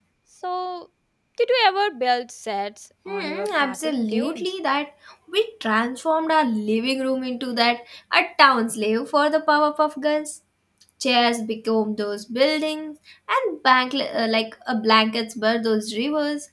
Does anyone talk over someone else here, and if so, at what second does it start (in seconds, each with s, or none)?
3.1 s